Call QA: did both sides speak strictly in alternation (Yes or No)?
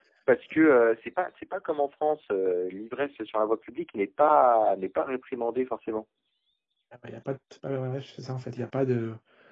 Yes